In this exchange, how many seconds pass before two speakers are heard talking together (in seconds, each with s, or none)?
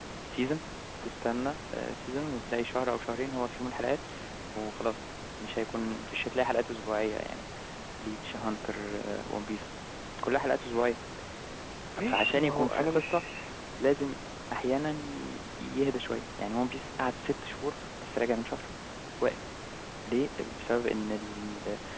12.0 s